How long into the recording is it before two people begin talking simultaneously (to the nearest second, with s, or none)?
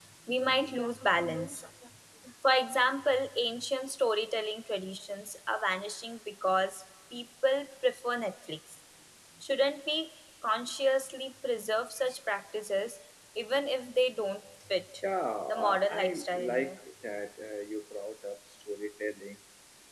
15 s